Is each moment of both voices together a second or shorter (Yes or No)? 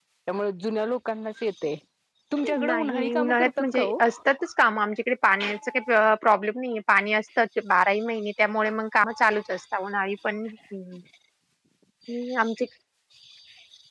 No